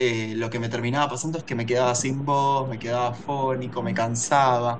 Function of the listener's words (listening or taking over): listening